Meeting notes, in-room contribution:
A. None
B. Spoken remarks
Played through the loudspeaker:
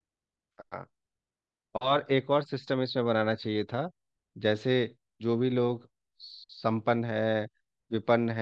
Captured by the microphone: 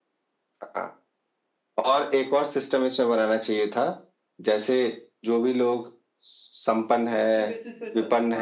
B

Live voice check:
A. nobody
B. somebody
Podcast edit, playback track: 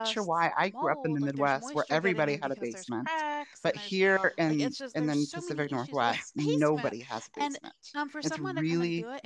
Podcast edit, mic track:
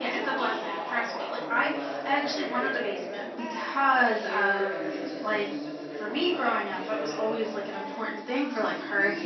B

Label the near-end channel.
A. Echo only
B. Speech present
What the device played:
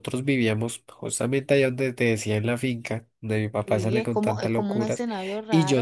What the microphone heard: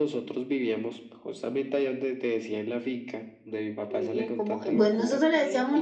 B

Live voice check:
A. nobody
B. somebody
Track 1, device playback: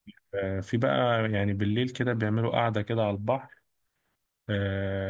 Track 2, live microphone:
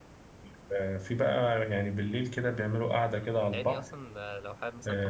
B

